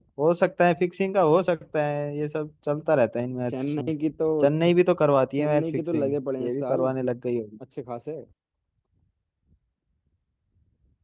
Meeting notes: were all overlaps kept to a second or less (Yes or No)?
No